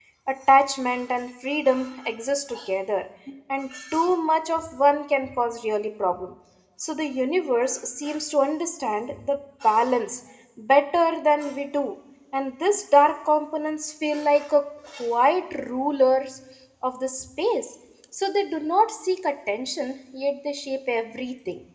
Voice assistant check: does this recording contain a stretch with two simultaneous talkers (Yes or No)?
No